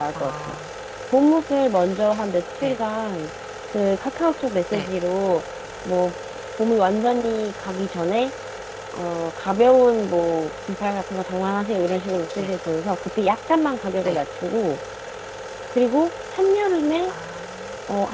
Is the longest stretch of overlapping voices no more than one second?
Yes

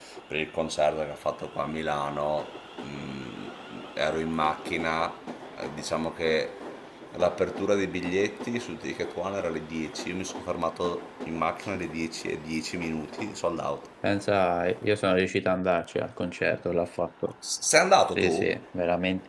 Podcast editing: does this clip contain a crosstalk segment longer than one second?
No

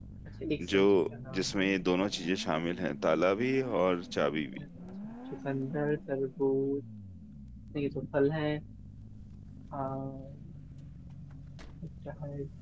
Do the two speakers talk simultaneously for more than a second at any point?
No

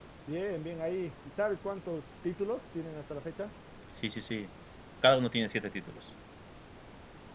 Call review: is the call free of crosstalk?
Yes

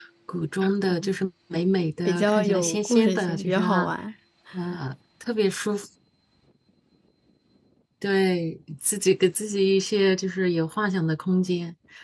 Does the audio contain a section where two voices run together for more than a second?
Yes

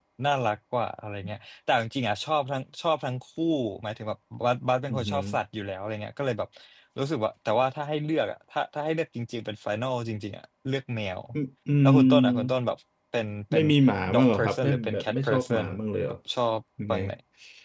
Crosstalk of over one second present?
Yes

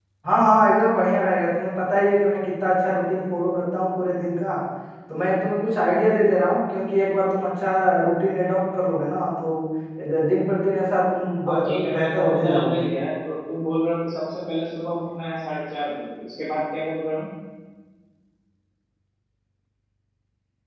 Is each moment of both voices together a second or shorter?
No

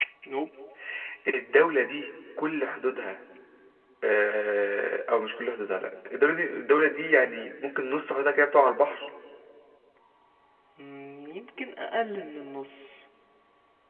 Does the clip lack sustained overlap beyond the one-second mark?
Yes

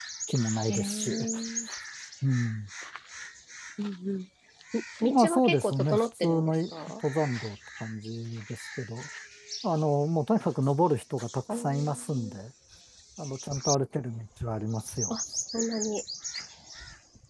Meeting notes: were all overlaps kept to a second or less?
No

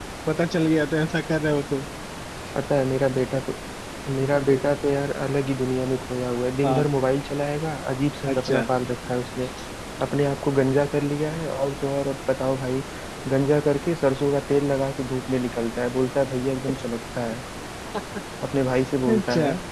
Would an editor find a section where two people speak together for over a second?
No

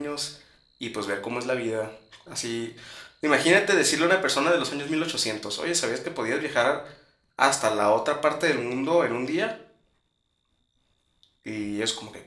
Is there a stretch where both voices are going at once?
No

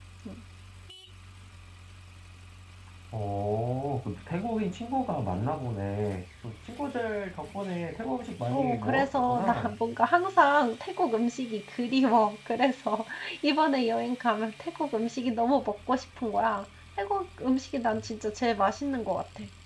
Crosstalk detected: Yes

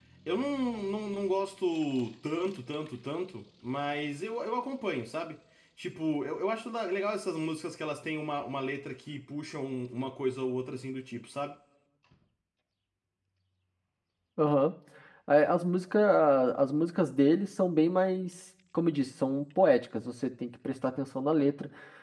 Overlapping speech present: No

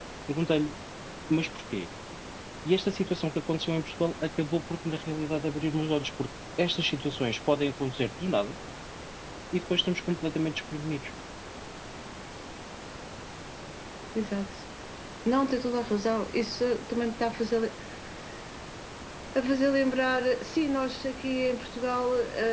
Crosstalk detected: No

